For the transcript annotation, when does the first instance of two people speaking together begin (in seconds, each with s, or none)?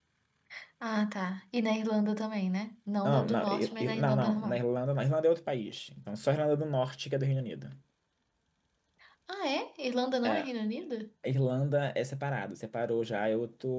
3.0 s